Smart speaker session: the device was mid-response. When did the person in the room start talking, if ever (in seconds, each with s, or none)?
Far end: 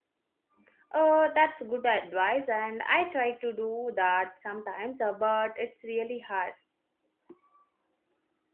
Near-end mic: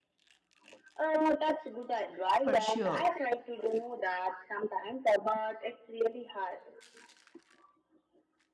2.4 s